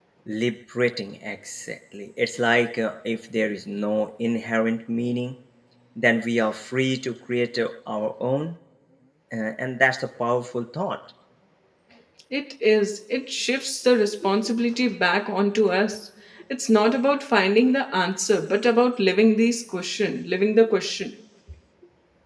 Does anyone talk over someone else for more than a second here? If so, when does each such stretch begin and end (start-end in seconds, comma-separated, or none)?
none